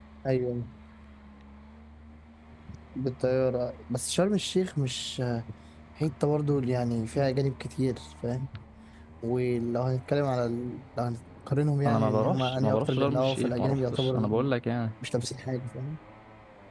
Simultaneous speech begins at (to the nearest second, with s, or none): 12 s